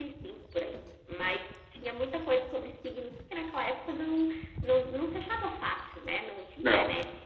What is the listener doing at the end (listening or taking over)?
taking over